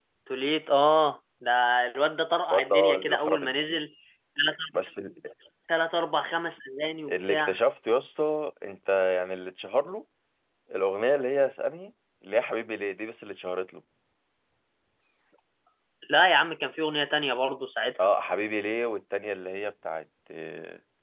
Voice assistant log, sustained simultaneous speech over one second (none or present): present